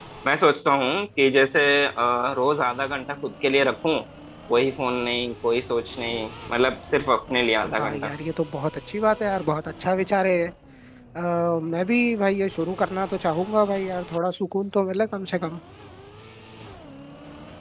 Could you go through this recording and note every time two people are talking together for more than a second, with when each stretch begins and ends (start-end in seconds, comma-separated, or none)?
none